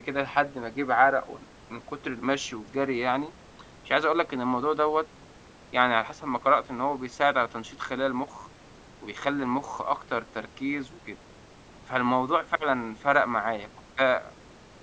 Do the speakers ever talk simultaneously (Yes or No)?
No